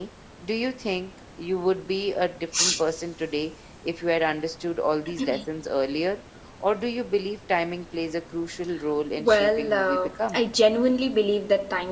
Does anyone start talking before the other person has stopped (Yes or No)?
Yes